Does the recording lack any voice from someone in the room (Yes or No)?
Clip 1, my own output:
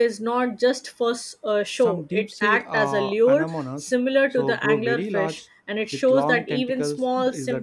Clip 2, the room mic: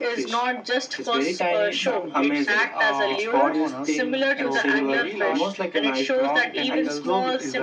No